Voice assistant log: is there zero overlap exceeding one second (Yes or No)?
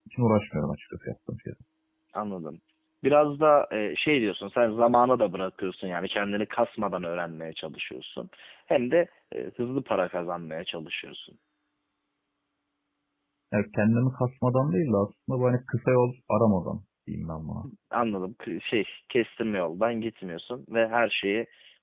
Yes